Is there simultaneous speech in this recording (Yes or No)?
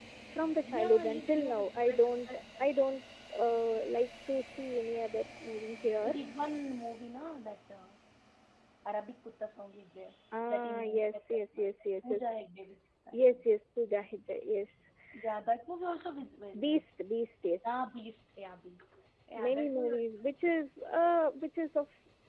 Yes